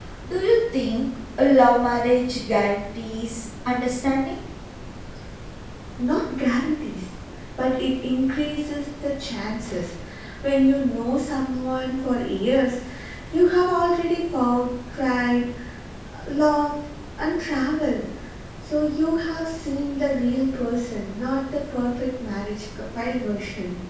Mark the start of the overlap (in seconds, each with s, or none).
none